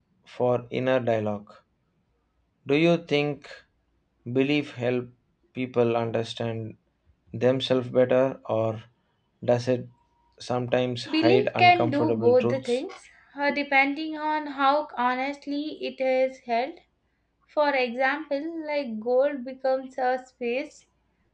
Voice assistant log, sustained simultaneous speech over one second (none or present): present